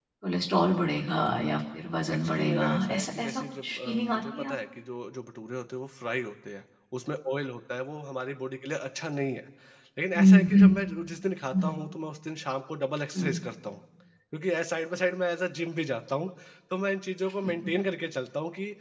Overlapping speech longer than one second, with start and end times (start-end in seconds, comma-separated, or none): 2.1-4.6